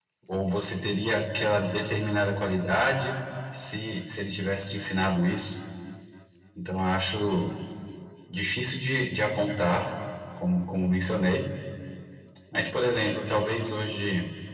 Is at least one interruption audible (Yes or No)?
No